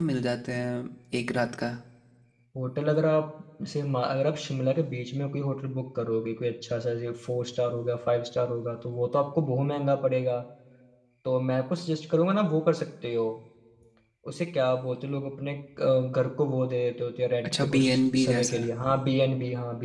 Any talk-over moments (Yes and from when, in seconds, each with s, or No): Yes, from 17.4 s